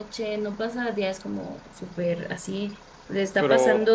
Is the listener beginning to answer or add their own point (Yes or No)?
No